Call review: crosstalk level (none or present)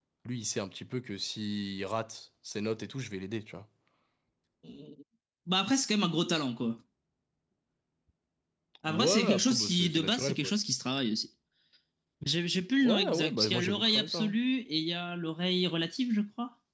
present